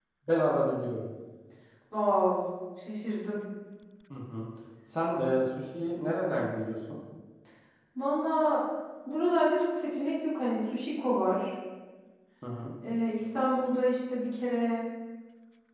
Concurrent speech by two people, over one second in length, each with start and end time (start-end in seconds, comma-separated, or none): none